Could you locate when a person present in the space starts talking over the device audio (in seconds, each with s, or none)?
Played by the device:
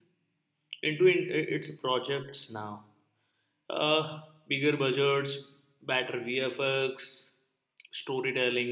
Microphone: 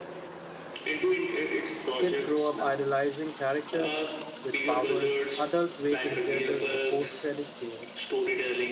2.0 s